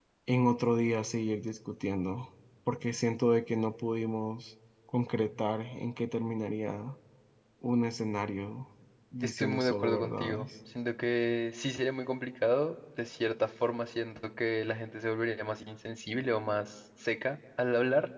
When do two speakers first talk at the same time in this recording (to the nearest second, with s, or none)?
9 s